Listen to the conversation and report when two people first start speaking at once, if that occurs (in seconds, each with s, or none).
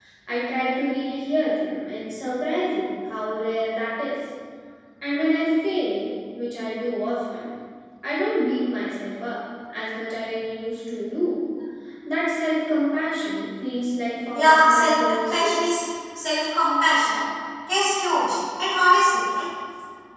14.3 s